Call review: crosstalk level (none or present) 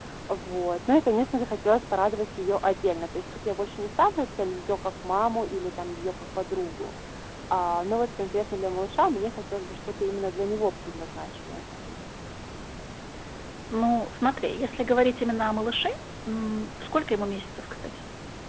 none